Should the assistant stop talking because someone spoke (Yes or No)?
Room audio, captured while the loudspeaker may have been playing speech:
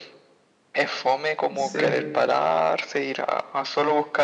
Yes